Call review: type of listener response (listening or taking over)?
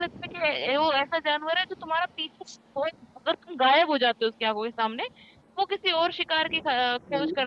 listening